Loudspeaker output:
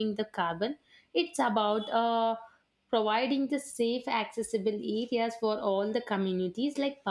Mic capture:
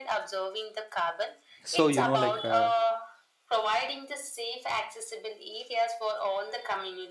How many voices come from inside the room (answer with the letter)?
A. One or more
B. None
A